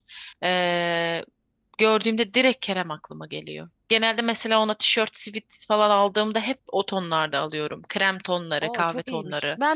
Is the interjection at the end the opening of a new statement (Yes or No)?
Yes